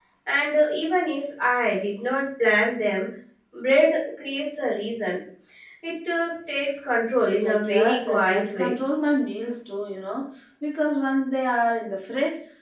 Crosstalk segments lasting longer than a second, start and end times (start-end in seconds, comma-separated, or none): 7.4-8.7